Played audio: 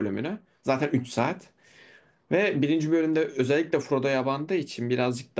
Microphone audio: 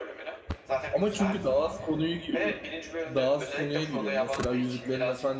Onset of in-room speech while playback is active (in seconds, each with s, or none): 0.9 s